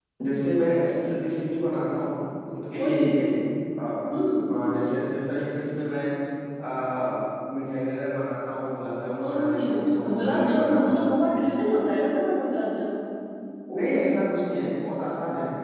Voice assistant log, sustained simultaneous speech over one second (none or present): present